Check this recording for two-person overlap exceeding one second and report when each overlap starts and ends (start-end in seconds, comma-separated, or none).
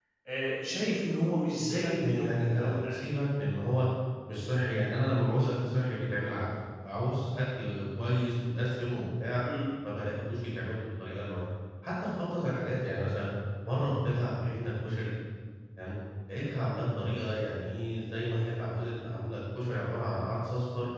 1.8-3.1